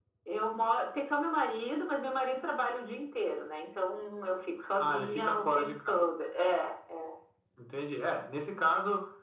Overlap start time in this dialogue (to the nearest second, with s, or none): 5 s